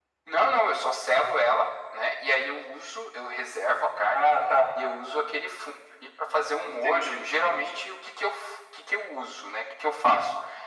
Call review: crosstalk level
present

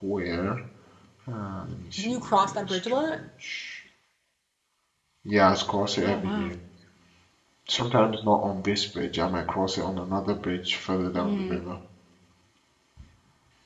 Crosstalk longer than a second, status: present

